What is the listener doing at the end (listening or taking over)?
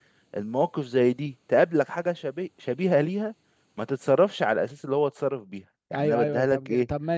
taking over